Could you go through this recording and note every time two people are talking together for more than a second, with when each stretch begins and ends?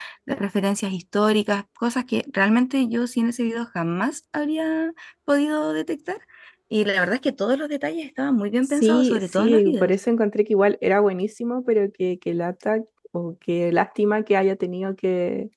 8.6-9.9

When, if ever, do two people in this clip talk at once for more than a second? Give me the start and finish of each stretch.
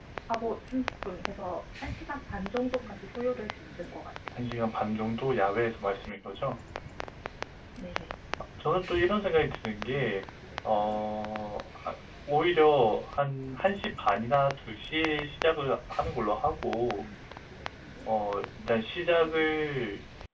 none

